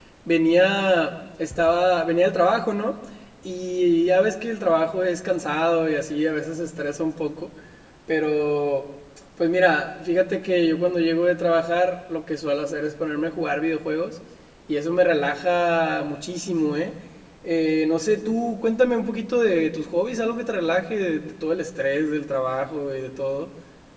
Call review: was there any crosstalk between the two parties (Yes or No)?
No